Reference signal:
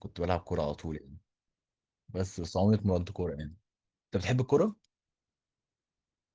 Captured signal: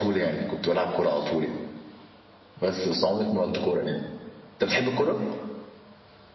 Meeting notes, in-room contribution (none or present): none